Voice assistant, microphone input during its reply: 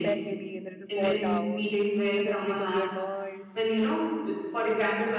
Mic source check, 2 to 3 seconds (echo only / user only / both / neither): both